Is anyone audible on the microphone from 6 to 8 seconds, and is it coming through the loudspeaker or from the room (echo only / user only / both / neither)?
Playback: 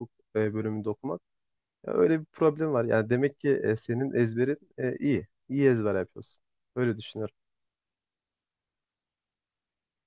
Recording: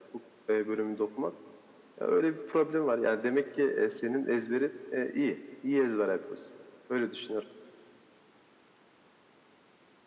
echo only